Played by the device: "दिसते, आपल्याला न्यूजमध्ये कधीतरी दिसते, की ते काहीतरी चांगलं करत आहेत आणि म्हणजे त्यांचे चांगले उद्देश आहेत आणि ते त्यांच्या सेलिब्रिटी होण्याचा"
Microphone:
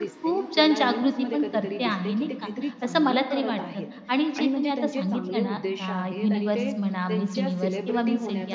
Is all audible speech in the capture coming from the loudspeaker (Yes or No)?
No